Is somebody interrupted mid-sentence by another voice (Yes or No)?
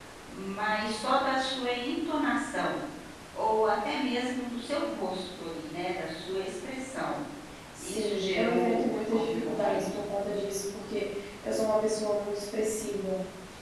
Yes